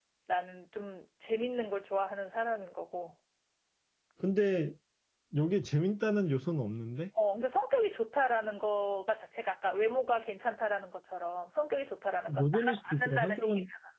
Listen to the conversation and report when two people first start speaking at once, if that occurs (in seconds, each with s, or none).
12.3 s